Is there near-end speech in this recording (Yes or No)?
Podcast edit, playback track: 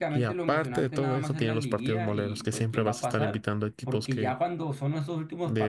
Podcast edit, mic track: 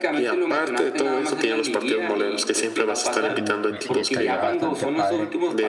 Yes